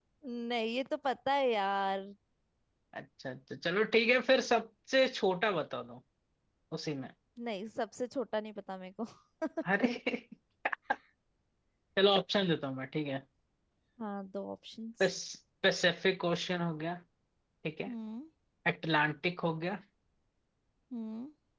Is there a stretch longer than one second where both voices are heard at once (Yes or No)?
No